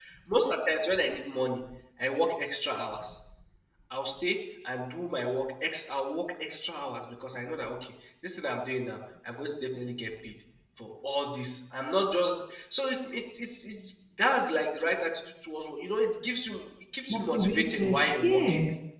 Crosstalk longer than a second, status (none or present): present